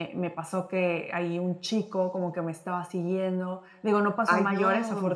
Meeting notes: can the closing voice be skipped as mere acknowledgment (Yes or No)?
Yes